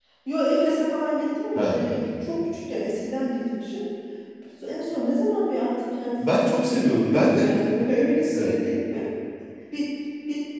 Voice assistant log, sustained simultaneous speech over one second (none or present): present